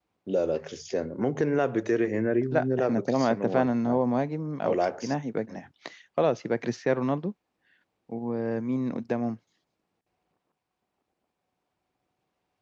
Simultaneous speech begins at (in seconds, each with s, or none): 2.5 s